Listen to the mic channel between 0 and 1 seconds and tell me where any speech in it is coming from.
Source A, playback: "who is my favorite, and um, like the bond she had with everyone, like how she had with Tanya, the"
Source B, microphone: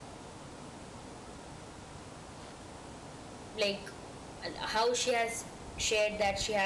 neither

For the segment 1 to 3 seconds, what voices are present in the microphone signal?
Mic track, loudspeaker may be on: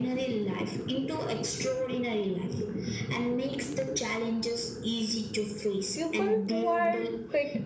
echo only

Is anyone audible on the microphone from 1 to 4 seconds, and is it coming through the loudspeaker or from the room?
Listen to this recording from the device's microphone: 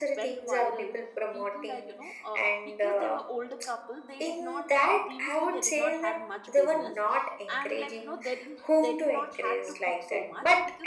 both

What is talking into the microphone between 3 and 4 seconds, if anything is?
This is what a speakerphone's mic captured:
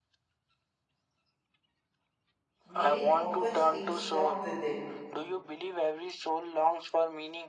both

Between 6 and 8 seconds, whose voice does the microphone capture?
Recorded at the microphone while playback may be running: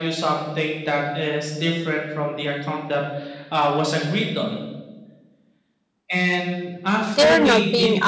both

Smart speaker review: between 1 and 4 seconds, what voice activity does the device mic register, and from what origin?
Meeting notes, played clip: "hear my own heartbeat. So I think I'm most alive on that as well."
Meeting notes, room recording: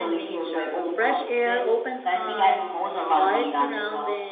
both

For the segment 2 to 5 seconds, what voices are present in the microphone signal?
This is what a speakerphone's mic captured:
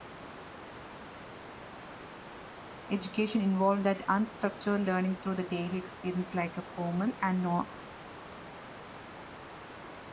user only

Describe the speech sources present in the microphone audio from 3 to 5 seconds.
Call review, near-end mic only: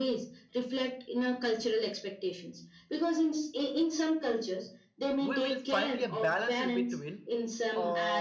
echo only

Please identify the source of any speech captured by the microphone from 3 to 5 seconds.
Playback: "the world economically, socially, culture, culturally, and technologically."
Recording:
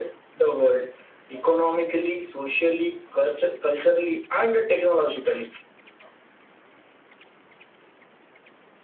echo only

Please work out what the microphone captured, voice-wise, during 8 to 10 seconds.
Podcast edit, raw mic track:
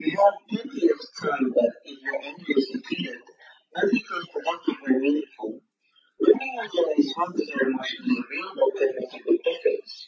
echo only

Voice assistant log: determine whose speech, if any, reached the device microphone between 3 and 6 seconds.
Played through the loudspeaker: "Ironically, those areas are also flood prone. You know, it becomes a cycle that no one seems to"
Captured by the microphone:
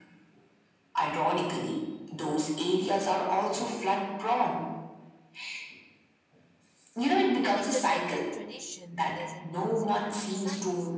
echo only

